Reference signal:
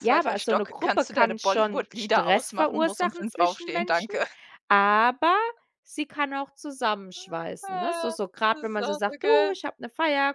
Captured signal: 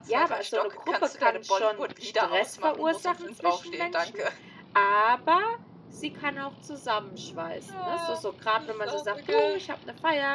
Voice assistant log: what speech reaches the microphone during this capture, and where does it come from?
echo only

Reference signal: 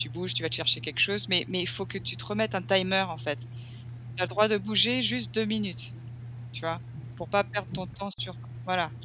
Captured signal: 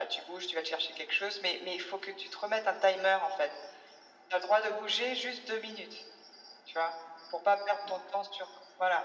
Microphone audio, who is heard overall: echo only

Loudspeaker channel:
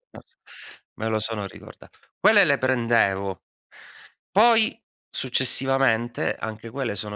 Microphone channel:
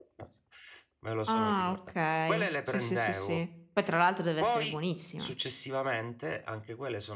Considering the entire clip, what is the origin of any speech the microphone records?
both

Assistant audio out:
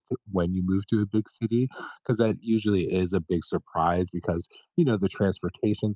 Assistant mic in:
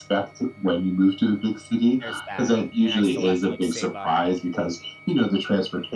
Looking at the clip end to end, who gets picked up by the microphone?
both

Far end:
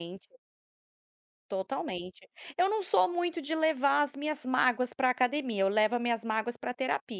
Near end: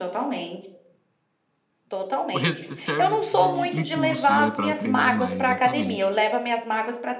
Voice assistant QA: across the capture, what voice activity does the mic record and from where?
both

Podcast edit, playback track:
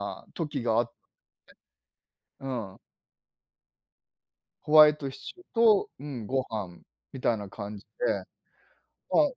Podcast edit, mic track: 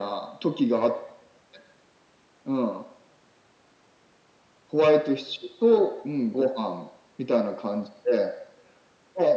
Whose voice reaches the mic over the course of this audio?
echo only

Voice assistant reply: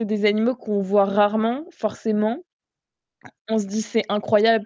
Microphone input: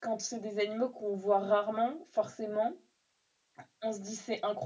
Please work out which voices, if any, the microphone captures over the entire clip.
echo only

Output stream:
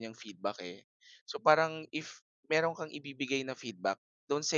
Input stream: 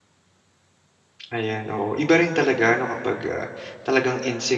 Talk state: user only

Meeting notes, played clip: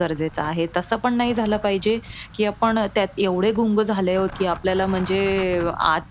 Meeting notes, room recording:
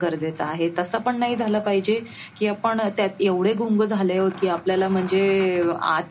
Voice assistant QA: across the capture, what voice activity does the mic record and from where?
echo only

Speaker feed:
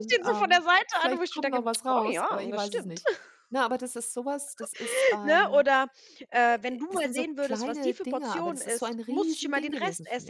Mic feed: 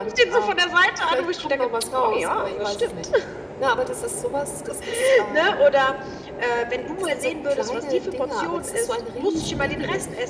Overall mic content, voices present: echo only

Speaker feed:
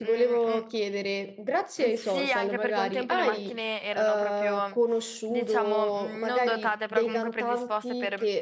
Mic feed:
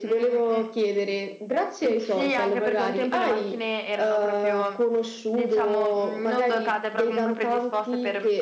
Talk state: echo only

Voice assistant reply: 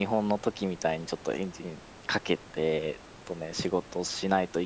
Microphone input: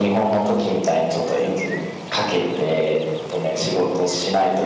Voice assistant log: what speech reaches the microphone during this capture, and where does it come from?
echo only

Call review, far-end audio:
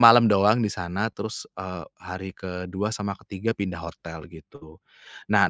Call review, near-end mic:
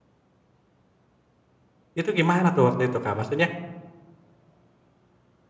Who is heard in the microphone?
user only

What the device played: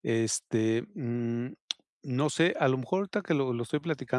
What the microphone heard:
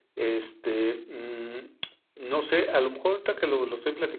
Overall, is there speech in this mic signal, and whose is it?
echo only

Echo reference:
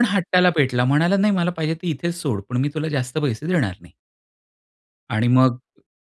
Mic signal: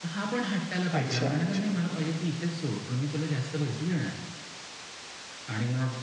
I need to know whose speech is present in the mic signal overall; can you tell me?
both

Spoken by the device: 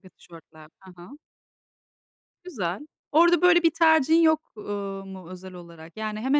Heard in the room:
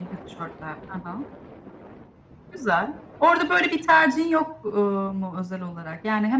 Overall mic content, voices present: echo only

